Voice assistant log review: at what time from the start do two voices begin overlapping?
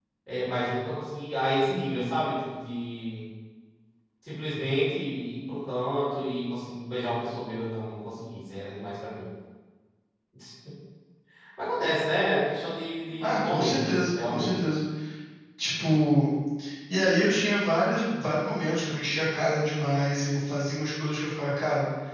13.2 s

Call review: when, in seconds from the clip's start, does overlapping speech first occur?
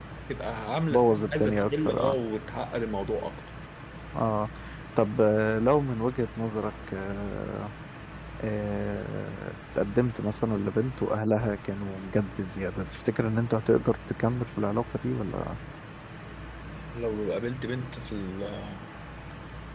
0.9 s

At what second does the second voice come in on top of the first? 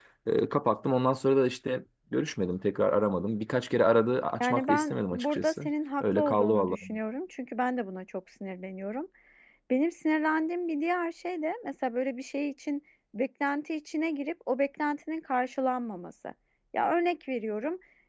4.4 s

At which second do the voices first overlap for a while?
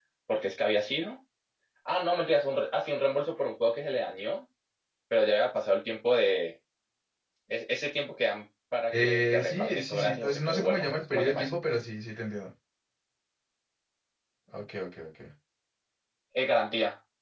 8.9 s

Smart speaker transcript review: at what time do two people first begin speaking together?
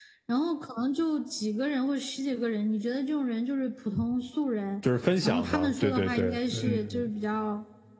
5.2 s

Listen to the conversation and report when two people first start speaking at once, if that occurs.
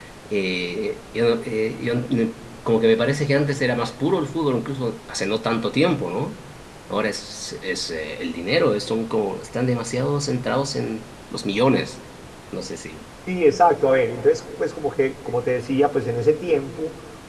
none

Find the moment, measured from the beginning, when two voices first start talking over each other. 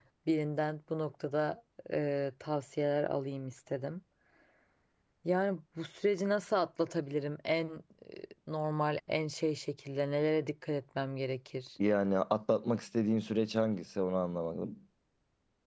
none

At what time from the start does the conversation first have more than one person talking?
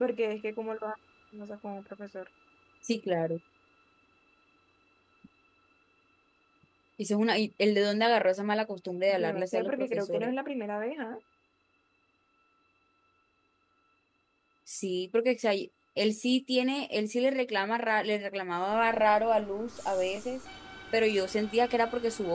9.1 s

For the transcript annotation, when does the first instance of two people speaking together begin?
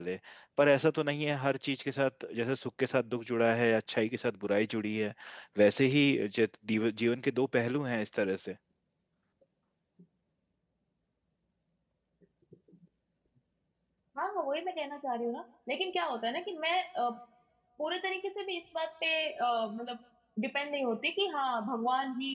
none

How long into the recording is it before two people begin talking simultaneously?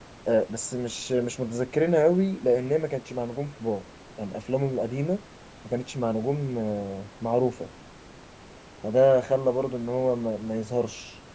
none

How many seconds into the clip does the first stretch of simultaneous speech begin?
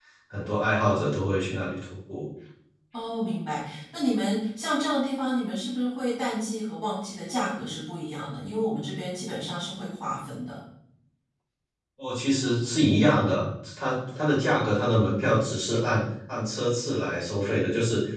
none

